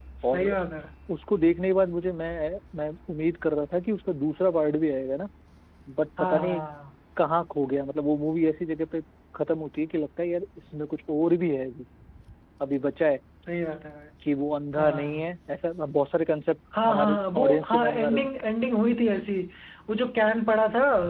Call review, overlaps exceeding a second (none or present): present